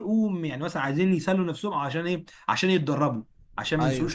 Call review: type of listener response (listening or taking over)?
listening